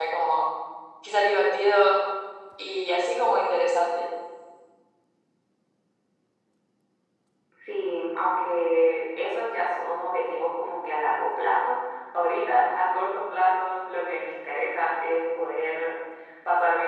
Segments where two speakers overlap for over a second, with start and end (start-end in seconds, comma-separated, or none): none